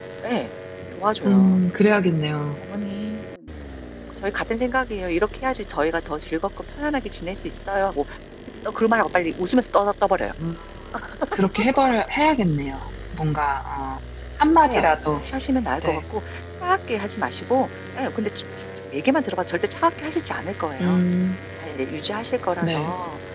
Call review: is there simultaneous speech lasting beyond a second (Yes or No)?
No